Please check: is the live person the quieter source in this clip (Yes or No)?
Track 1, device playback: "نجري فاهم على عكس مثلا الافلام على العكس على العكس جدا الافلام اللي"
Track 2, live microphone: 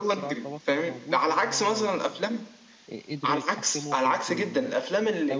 Yes